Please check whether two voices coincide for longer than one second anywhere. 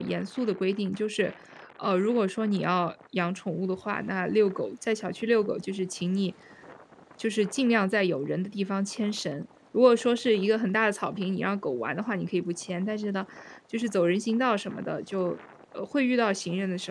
No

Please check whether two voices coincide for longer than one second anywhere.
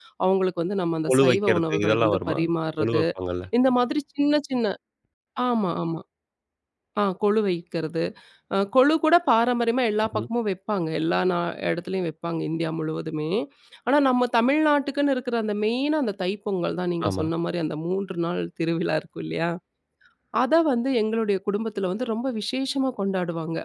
Yes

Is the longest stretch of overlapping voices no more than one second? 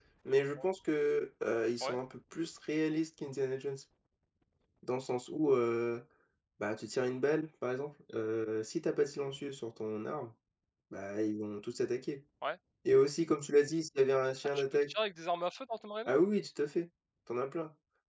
Yes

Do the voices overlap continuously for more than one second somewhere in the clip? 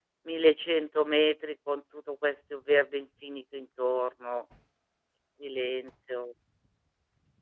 No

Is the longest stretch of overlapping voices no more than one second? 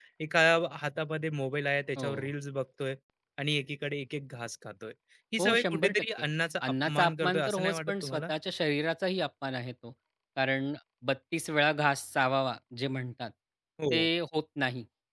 No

